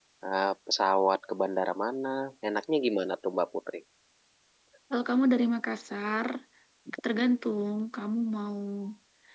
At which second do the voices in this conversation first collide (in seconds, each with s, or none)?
none